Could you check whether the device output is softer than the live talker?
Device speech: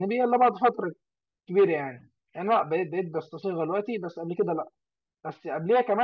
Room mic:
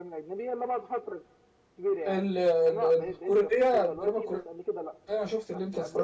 Yes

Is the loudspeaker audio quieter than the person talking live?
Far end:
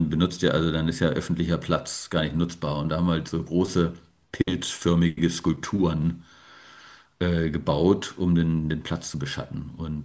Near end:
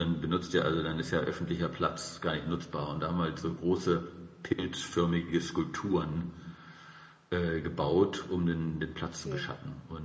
No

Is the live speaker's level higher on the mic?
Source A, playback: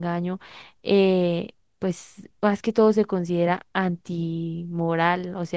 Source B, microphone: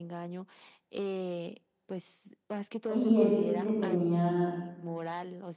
Yes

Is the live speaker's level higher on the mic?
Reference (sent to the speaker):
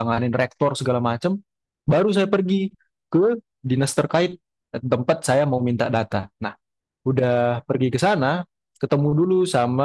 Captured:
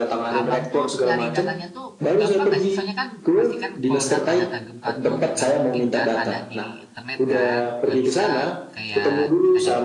No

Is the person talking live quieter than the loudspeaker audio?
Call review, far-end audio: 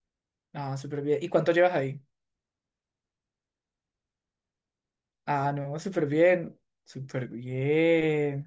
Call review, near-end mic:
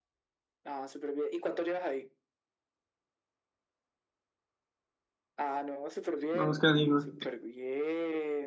No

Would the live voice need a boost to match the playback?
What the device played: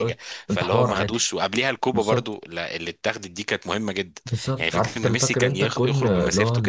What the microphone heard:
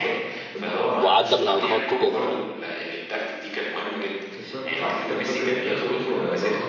No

